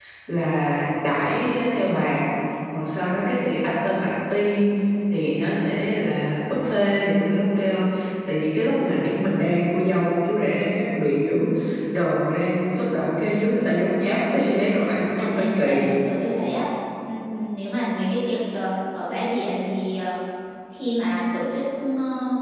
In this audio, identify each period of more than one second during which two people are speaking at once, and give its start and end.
14.6-15.9

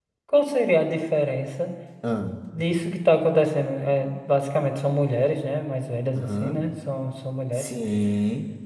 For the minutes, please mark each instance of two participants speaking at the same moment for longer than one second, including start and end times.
none

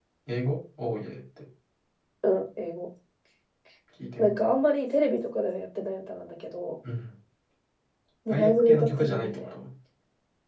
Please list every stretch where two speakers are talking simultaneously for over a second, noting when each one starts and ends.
8.3-9.5

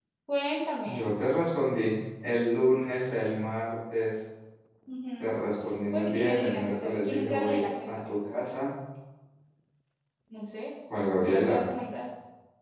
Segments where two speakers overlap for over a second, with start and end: 5.9-8.1

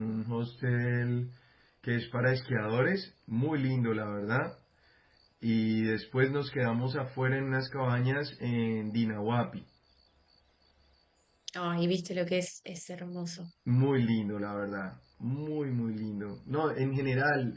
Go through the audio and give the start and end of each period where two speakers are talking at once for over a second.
none

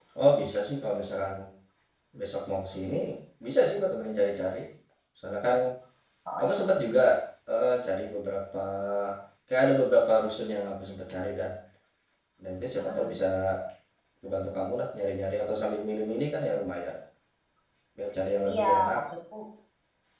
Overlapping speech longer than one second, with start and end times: none

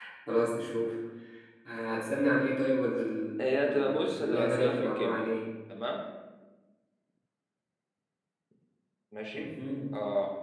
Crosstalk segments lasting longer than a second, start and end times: 3.4-5.3

